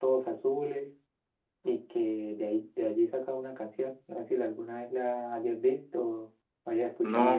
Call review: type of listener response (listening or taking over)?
taking over